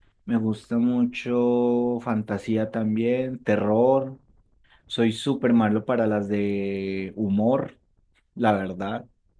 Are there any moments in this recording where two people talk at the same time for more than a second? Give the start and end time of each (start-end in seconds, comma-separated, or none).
none